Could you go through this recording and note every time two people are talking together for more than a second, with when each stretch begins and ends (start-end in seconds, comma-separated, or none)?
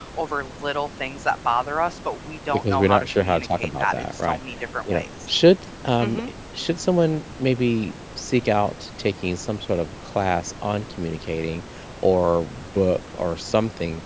2.5-4.4